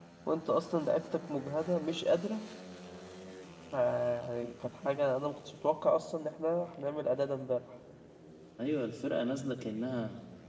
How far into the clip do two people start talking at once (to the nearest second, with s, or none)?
none